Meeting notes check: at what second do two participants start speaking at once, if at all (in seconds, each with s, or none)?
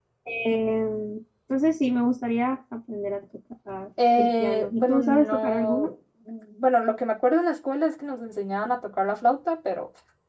4.0 s